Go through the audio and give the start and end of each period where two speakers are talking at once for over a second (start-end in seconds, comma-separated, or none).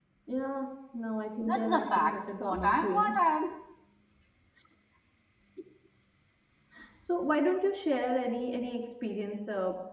1.4-3.1